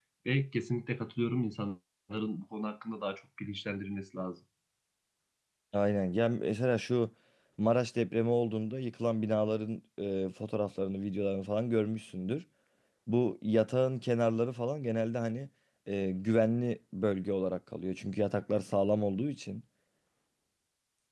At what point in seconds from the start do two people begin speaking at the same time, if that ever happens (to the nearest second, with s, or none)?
none